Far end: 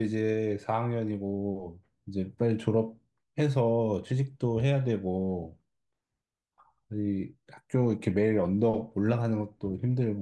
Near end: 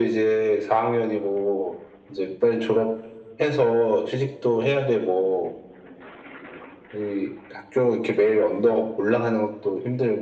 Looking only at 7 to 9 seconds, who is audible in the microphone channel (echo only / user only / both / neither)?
echo only